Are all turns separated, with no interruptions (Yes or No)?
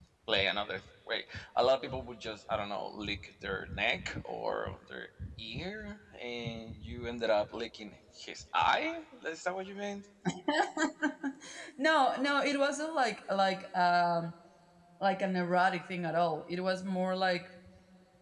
Yes